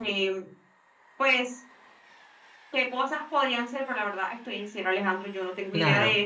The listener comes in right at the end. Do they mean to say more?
No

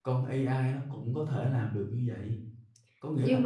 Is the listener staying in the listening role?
Yes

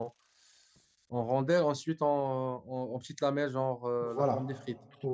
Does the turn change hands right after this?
Yes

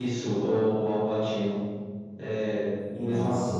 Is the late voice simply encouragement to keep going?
No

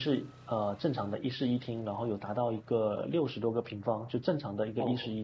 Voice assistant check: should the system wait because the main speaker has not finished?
No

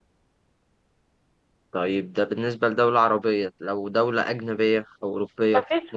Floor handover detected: Yes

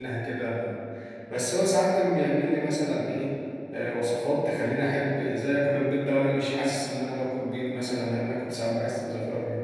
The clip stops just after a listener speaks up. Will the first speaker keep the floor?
No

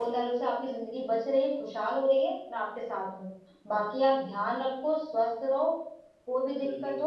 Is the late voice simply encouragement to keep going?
Yes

